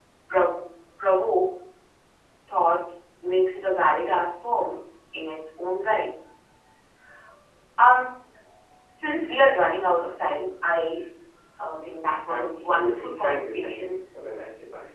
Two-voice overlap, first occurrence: 12.3 s

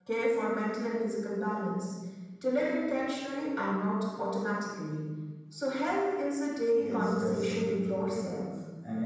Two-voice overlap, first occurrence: 6.8 s

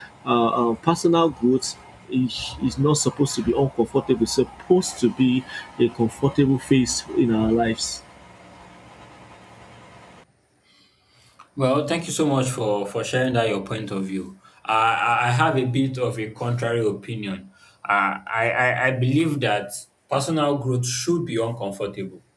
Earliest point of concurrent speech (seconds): none

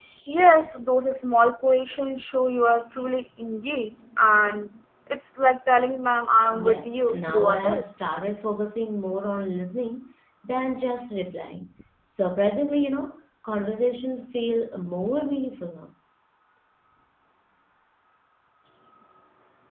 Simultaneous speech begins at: 6.5 s

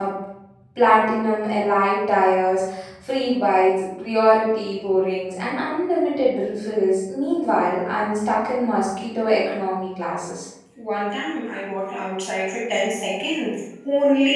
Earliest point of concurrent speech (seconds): none

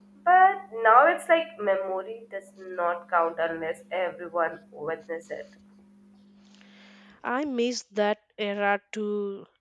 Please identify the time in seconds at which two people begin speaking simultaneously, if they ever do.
none

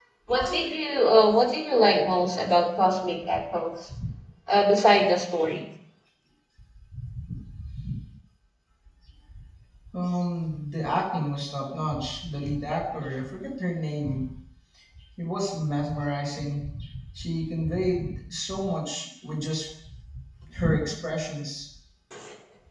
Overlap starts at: none

